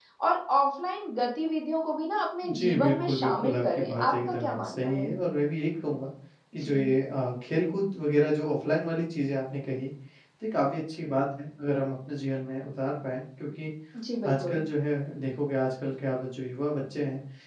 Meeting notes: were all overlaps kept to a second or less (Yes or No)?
No